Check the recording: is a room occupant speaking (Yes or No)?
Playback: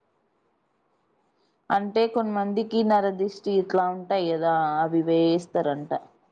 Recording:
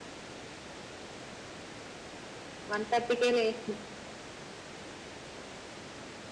Yes